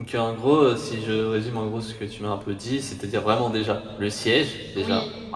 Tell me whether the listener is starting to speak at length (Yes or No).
No